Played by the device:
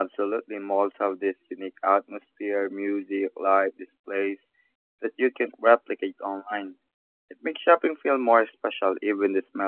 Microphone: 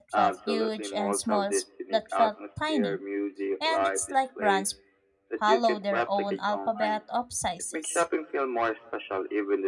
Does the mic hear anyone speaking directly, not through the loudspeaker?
Yes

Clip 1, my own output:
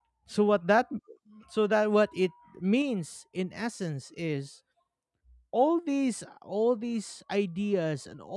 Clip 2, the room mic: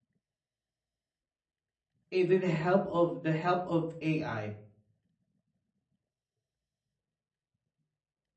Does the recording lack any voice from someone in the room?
No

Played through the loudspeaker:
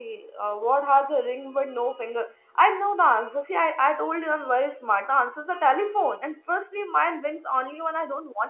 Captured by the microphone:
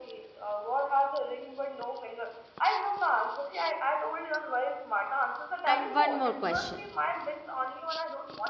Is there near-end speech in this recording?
Yes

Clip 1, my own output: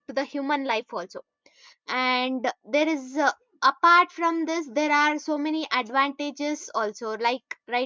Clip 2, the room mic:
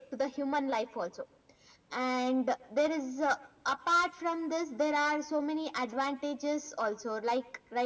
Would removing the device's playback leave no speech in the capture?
Yes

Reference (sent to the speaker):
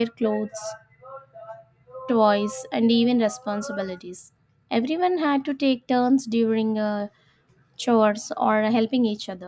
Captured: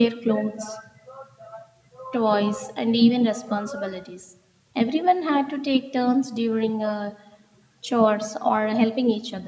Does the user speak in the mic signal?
No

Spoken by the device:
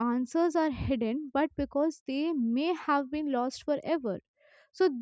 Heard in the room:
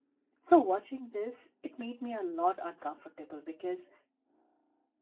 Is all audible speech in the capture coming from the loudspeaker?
No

